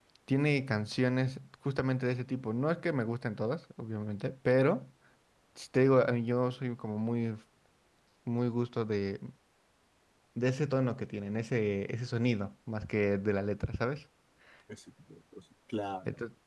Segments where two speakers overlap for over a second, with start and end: none

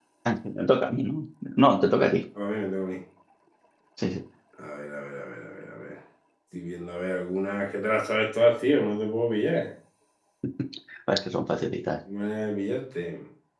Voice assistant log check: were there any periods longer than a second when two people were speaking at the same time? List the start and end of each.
none

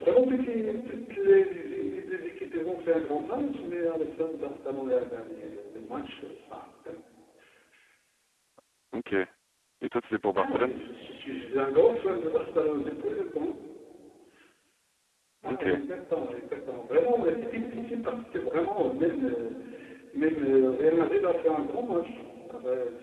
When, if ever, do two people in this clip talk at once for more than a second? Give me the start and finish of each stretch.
none

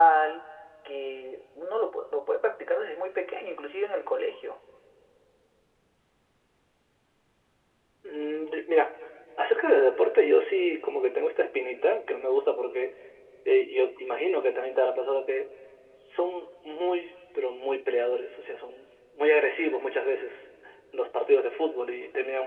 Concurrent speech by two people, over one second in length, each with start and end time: none

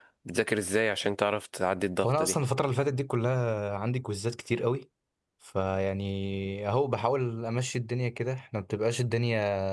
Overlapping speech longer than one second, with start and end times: none

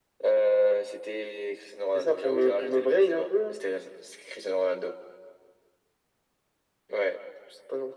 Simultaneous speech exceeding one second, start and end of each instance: 1.9-3.6

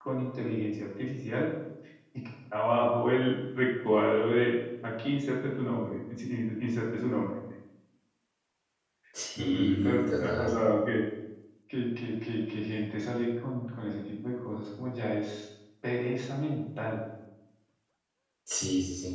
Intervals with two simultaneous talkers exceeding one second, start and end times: 9.3-10.6

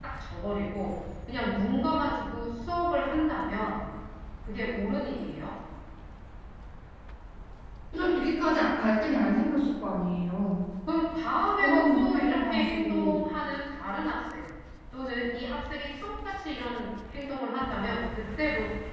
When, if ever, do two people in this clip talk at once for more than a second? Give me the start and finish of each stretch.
11.6-13.2

